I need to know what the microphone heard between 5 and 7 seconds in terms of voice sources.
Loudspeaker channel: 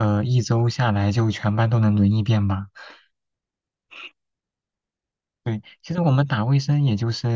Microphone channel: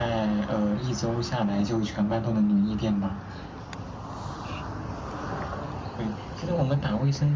echo only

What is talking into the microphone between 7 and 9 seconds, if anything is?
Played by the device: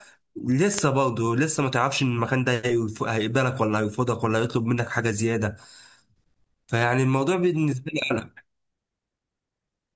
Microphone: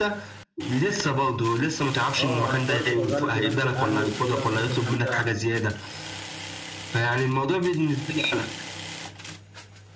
echo only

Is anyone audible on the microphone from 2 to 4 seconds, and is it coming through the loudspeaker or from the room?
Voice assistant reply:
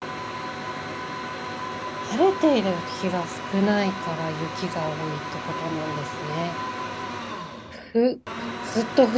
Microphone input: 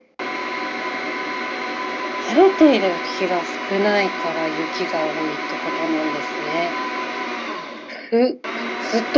echo only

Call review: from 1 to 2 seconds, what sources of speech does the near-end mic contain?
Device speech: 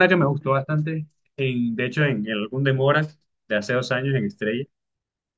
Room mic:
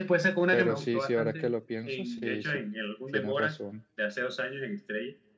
both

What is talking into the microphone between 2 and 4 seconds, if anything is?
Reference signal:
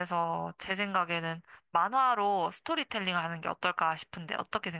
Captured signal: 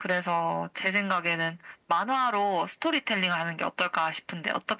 echo only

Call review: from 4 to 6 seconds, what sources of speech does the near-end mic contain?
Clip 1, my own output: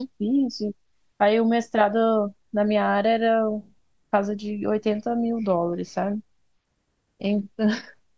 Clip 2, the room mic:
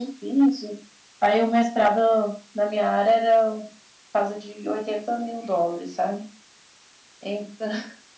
echo only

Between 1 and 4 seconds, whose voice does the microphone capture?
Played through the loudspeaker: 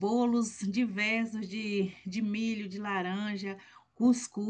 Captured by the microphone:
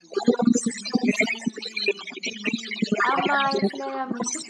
both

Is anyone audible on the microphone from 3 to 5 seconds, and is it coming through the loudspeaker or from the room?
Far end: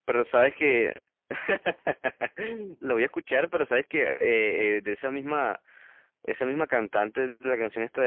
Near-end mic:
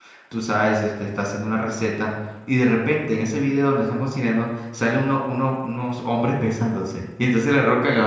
user only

